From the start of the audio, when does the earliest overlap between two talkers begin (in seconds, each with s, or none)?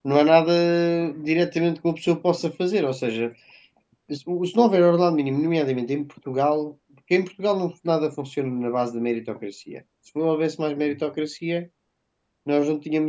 none